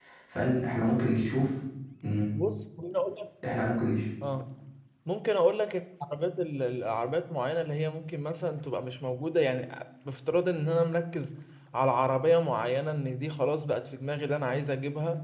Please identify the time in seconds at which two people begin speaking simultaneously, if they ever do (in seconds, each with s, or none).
none